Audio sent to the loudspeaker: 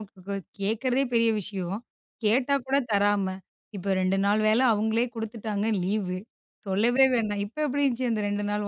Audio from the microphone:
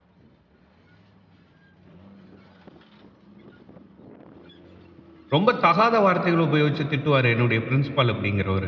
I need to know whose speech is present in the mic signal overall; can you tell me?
user only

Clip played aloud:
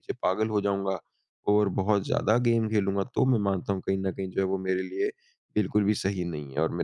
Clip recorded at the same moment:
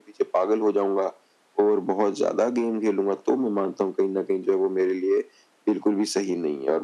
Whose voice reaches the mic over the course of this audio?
echo only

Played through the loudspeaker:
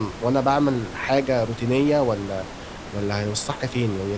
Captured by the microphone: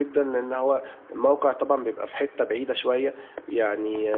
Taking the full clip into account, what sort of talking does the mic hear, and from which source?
user only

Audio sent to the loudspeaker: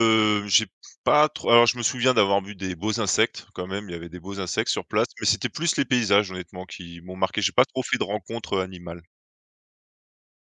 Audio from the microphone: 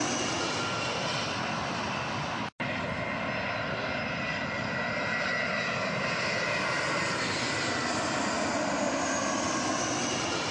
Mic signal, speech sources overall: neither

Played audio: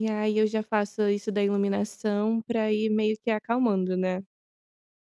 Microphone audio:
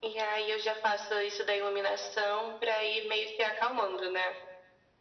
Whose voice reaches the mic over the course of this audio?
echo only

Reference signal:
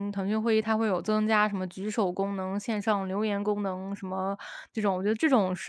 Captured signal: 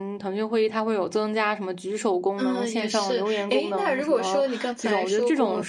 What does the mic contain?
both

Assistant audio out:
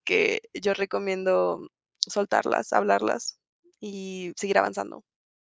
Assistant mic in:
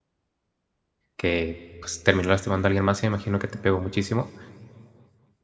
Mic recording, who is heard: user only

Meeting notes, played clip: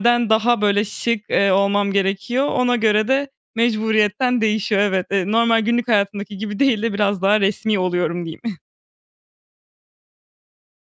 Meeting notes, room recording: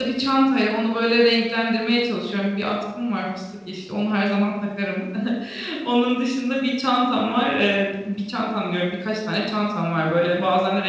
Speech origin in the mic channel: user only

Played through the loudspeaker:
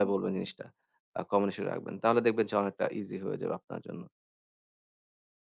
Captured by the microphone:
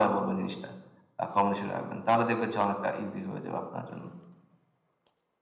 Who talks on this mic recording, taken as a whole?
echo only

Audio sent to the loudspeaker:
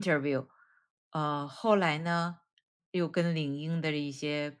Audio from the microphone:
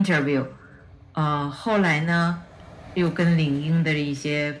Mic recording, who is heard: echo only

